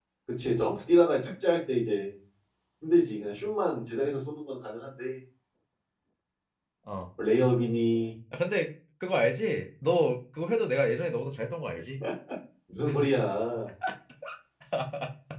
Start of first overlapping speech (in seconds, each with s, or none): none